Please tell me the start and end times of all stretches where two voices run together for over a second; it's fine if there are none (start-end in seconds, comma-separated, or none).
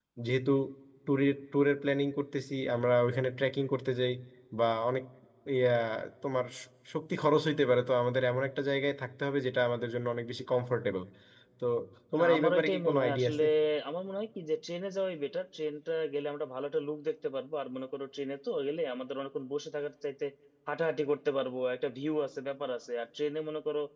12.2-13.4